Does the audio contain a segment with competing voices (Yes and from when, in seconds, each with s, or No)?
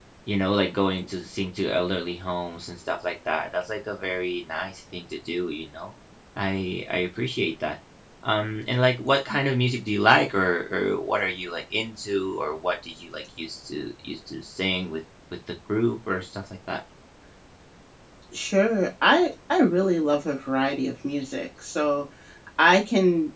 No